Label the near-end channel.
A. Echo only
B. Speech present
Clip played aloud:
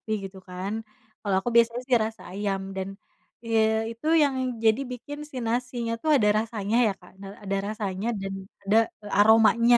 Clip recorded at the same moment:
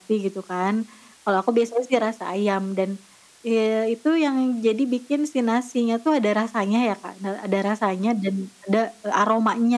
A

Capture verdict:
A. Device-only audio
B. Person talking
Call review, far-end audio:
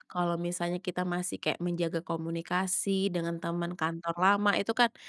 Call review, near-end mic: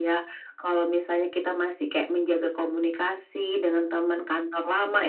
A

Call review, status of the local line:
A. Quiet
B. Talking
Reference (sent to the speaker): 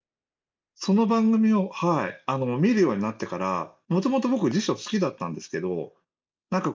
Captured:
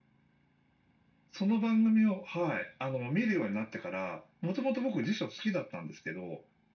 A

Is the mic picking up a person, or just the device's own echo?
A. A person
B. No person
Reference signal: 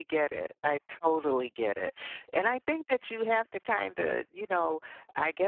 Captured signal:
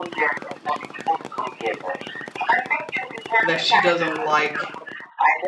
A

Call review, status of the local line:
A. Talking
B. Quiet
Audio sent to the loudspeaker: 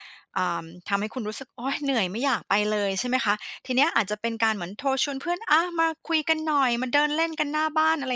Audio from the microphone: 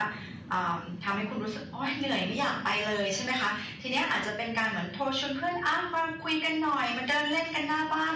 B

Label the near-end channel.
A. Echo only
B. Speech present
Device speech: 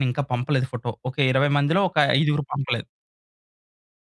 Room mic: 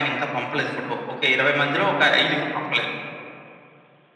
A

